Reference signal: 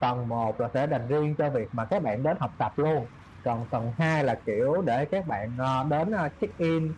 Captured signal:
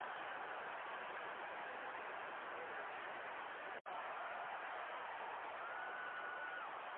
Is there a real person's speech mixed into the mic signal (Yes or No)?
No